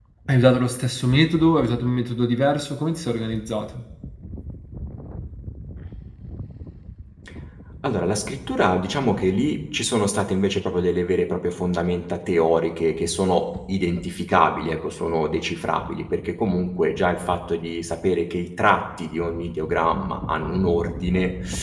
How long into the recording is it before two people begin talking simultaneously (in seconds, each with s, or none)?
none